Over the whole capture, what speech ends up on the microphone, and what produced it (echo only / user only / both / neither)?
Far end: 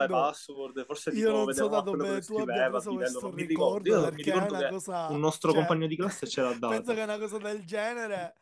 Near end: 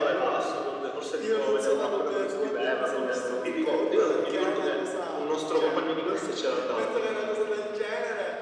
echo only